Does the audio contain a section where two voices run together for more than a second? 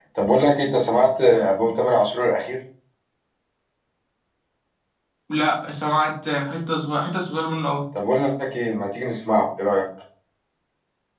No

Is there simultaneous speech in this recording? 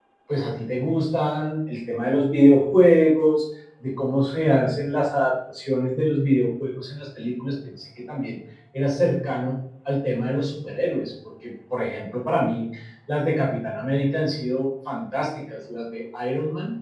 No

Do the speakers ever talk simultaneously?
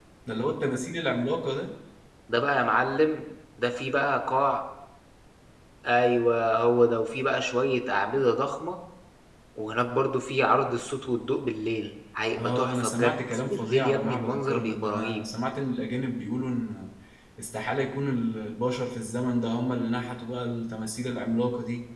Yes, from 12.4 s

